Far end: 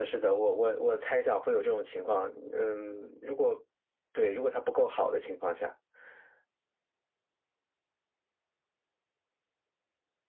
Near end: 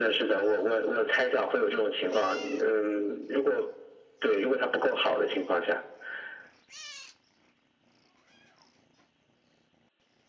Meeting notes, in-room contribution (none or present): none